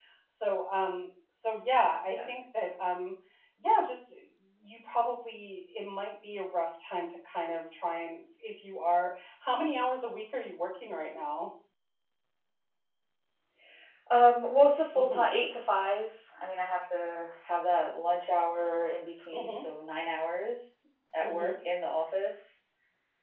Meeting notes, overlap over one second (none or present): none